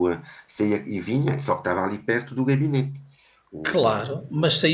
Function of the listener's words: taking over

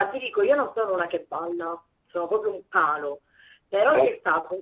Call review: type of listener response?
listening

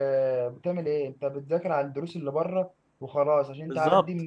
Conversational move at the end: listening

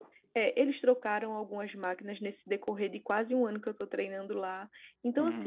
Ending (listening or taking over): listening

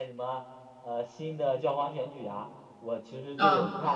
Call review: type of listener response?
listening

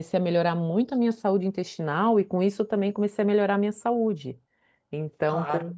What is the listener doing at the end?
taking over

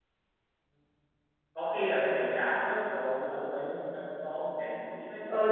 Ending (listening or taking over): taking over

